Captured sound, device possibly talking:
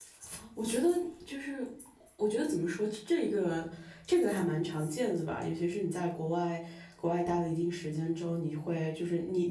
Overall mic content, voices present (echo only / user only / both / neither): user only